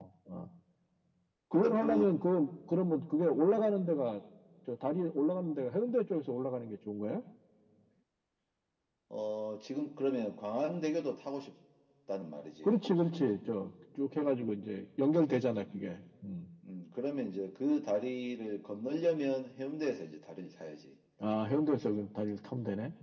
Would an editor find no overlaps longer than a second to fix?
Yes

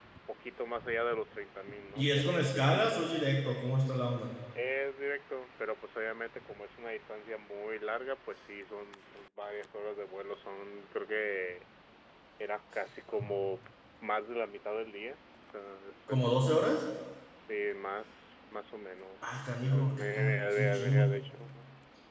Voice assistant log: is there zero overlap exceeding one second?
No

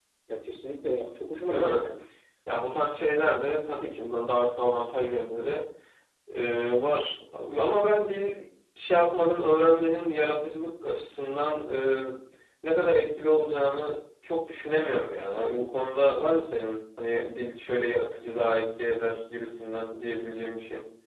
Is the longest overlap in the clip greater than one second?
No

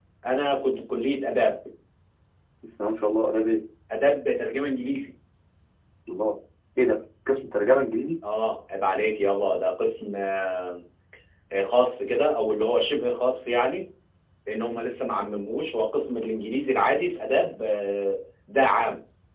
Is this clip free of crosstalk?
Yes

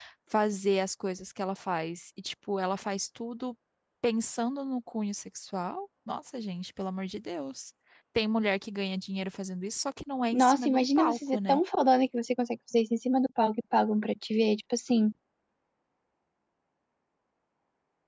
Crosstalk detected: Yes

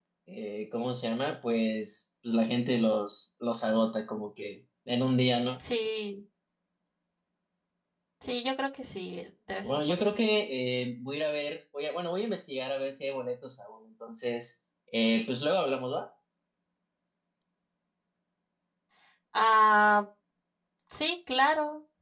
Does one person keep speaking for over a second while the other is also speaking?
No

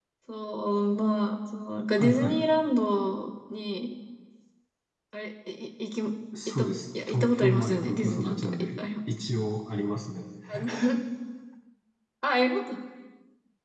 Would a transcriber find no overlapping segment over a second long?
No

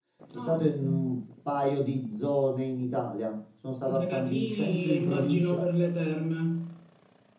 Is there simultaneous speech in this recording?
Yes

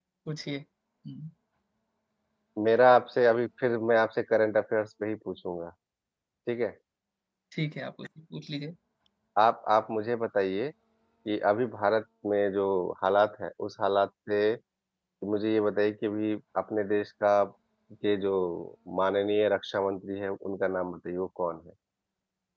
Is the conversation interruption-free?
Yes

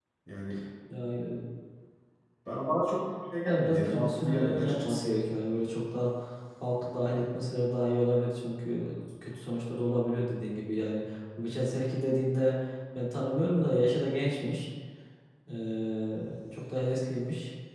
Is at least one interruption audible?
Yes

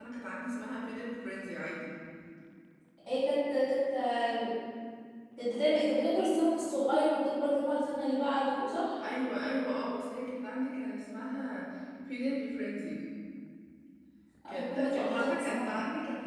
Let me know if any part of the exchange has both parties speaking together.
Yes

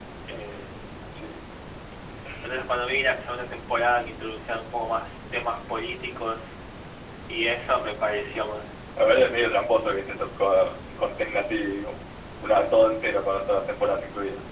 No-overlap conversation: Yes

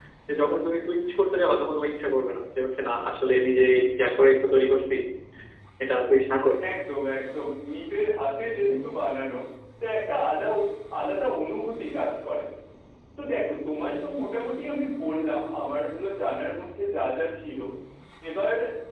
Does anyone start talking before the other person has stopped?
No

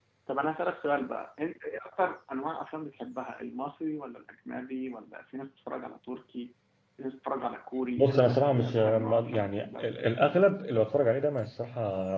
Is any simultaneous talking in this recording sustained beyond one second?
Yes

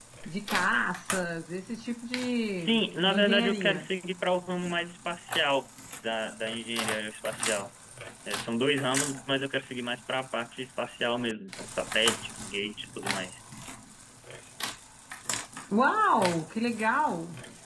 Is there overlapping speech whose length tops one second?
Yes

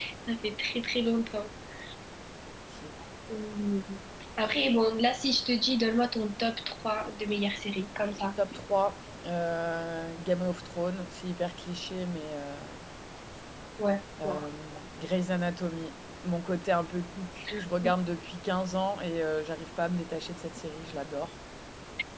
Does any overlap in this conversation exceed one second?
No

